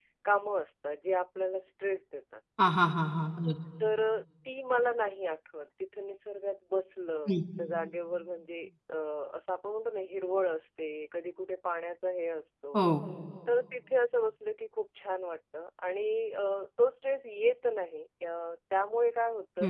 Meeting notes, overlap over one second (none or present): none